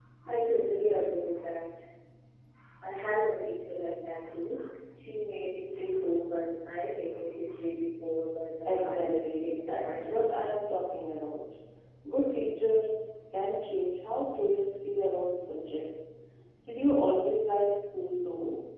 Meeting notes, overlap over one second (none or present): present